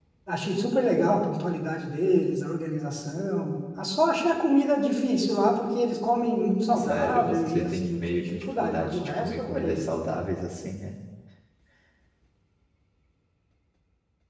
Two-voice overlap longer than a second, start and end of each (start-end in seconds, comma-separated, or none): 6.7-9.8